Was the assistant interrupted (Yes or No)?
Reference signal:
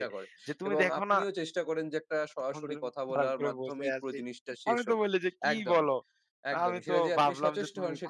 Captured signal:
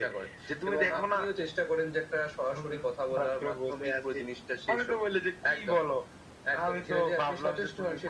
No